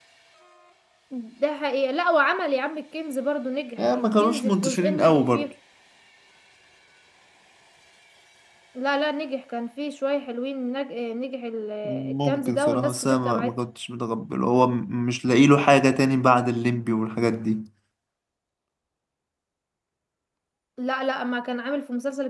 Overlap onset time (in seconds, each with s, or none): 3.9 s